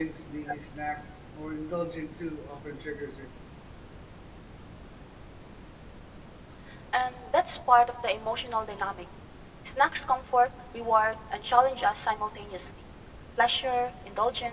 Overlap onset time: none

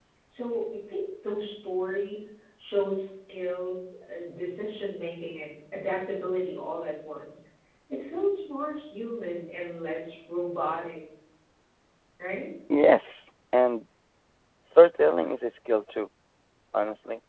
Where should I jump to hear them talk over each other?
none

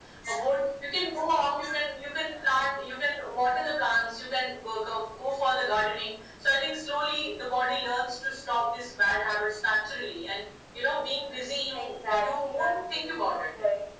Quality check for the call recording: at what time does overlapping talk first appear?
11.7 s

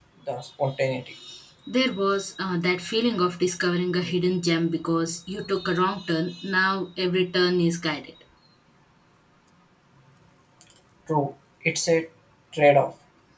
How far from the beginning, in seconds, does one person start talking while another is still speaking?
none

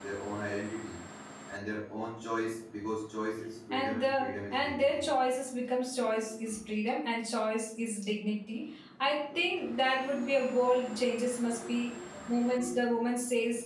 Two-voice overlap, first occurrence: 3.7 s

